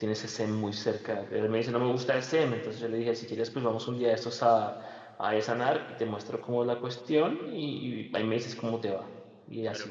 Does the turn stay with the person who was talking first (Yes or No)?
No